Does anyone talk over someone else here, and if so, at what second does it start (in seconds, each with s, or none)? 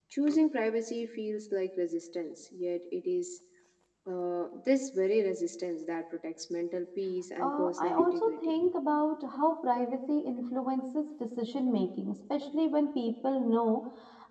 7.4 s